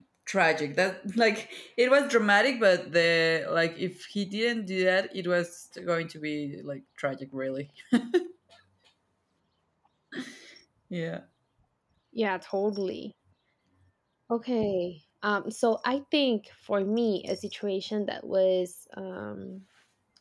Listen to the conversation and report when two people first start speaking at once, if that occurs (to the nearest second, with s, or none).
none